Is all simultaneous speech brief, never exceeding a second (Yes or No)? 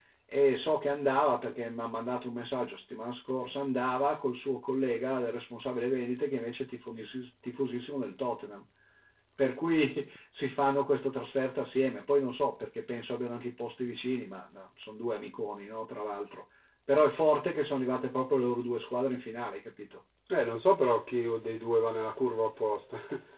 Yes